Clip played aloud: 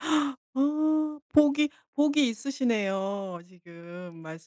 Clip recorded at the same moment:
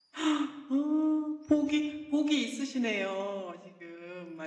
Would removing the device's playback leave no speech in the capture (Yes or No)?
Yes